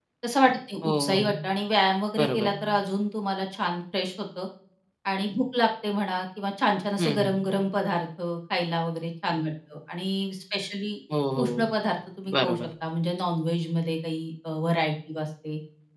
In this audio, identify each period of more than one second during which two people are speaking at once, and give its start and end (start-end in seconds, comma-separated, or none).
none